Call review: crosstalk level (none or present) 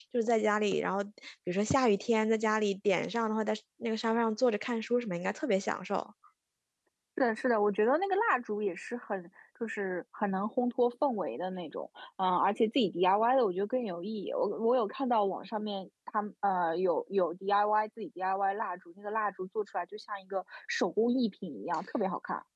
none